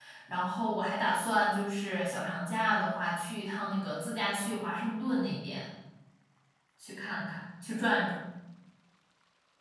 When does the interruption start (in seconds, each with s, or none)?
none